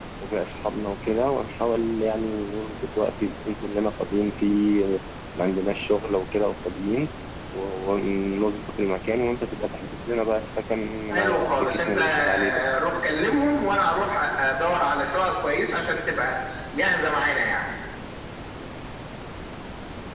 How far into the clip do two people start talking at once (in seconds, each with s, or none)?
11.1 s